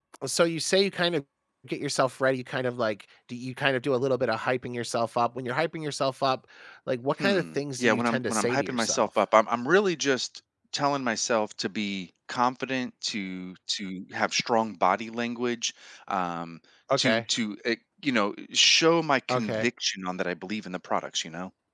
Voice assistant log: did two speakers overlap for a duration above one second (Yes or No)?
Yes